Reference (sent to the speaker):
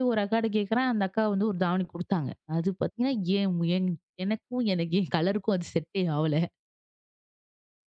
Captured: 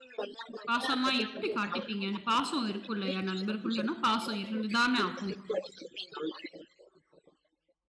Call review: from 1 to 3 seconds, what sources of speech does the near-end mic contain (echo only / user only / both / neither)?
both